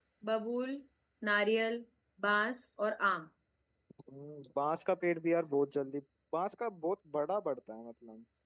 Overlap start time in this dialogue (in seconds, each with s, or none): none